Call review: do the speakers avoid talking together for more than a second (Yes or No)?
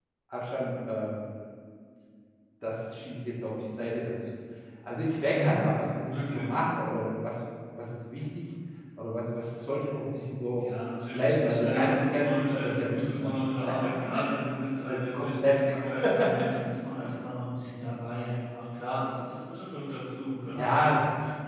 No